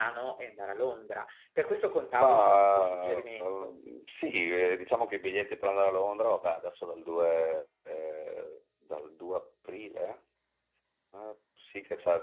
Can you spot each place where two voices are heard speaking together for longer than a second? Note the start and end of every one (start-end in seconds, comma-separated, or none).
2.1-3.7